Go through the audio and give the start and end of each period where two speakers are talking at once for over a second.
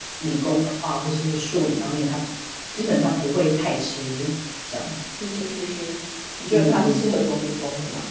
none

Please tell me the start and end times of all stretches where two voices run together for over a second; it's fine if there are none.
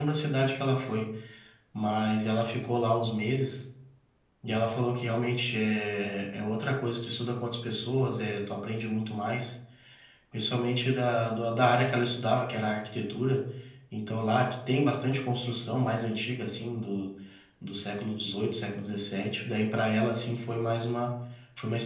none

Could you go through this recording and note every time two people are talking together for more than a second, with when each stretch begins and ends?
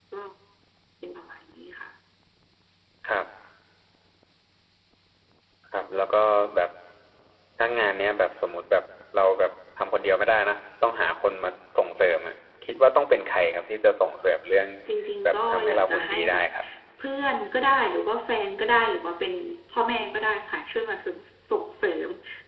15.2-16.4

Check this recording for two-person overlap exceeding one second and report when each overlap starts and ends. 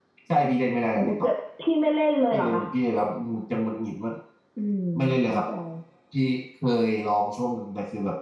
none

